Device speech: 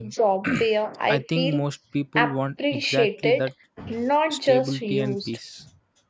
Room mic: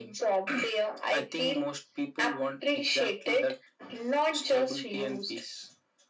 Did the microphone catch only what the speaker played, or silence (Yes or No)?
Yes